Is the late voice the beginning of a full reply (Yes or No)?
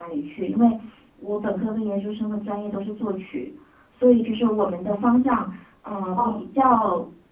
No